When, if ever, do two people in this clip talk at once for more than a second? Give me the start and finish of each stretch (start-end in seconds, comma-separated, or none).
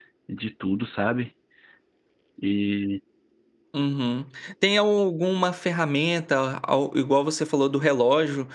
none